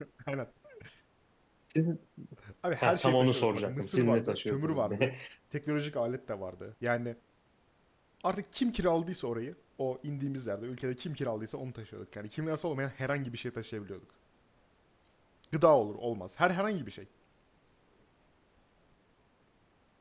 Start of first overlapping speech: 2.8 s

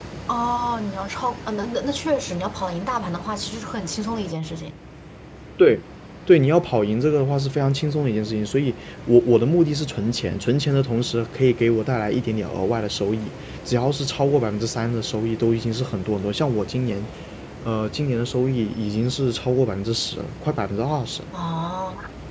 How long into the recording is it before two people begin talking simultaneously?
none

